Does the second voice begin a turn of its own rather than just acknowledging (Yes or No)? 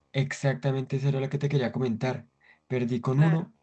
No